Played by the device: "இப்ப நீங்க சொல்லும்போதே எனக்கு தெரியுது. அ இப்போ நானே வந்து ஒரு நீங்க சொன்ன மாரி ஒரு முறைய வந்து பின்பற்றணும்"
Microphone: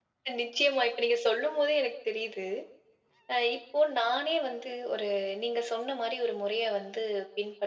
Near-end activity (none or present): none